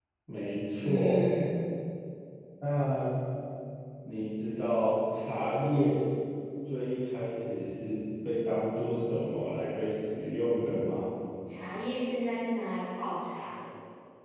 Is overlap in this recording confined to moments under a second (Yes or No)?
Yes